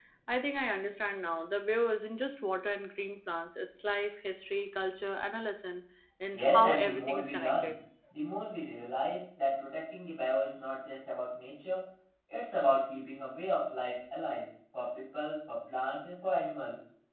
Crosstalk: present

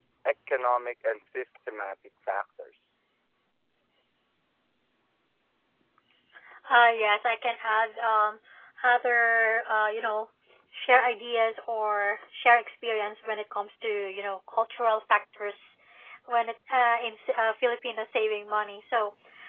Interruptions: none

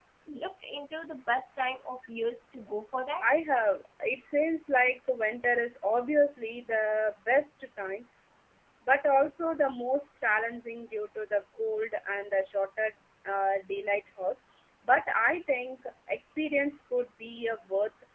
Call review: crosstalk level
none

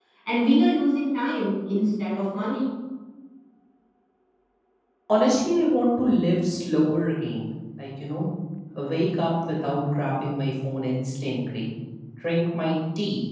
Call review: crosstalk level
none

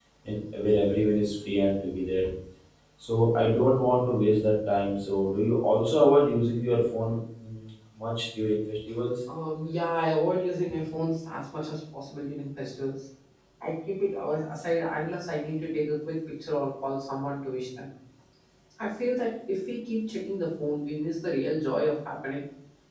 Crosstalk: none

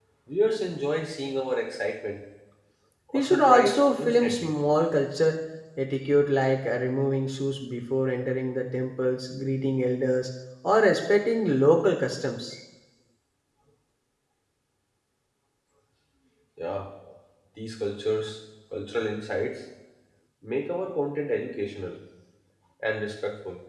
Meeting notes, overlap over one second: present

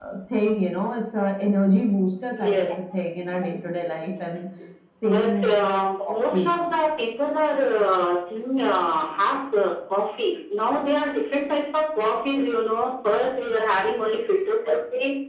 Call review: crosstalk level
present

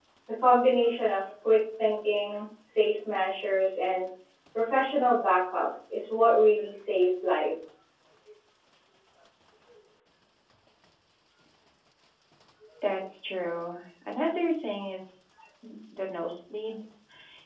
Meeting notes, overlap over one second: none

